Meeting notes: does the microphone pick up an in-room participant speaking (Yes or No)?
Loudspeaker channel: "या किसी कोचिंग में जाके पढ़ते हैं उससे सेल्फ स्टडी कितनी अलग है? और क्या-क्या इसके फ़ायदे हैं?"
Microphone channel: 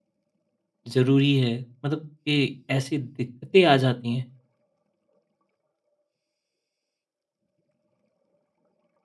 Yes